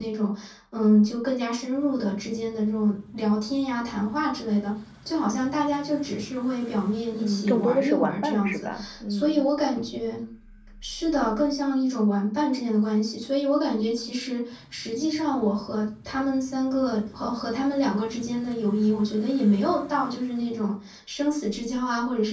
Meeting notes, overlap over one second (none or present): present